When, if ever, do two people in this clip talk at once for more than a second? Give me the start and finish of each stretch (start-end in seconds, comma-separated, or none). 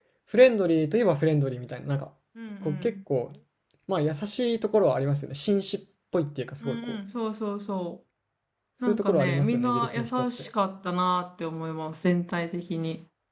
8.8-10.5